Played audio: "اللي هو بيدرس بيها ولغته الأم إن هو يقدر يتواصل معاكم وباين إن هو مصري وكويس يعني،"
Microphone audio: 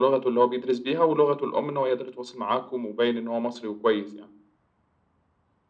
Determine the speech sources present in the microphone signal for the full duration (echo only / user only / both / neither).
echo only